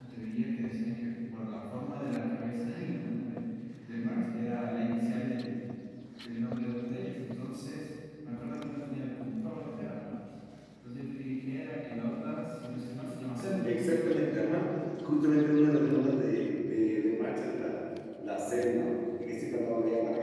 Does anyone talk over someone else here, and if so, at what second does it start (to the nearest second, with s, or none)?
none